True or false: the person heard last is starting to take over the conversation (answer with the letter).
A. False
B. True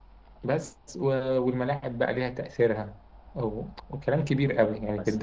A